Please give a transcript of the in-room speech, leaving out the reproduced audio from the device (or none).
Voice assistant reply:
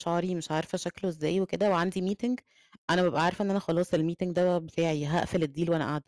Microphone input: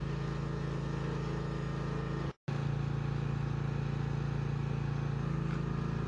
none